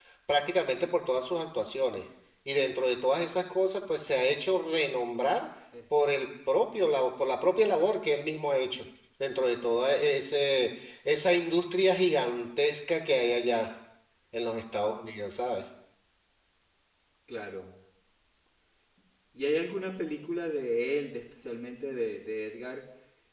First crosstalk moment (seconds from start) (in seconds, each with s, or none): none